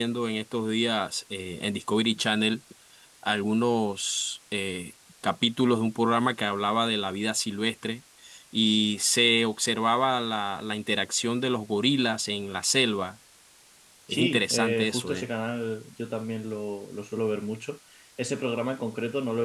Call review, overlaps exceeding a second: present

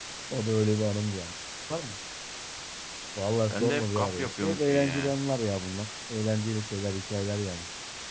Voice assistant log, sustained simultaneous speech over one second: present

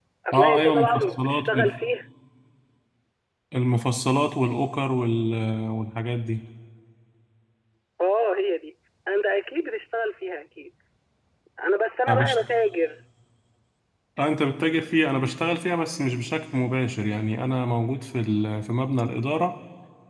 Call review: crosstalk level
present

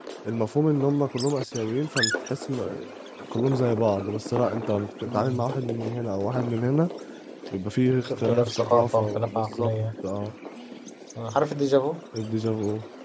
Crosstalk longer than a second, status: present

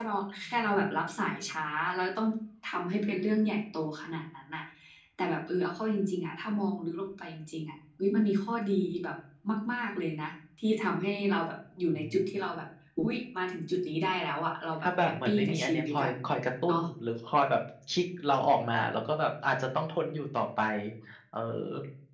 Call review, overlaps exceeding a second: present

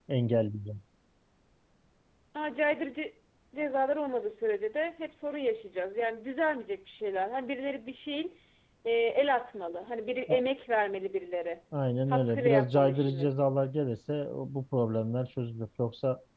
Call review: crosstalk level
present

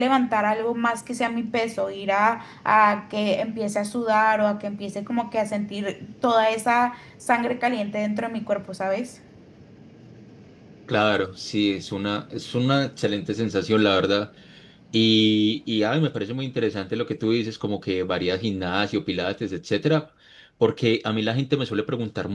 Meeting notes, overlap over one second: none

